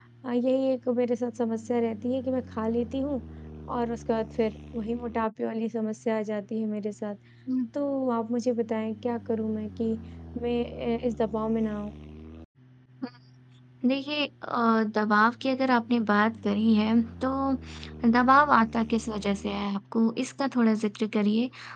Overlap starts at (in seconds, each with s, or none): none